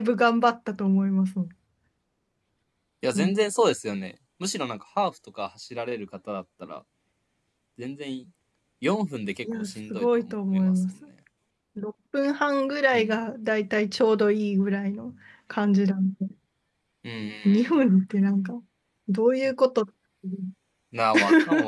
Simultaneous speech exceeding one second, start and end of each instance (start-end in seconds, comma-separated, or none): 9.4-10.9